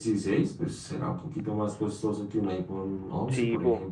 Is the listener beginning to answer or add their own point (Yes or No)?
Yes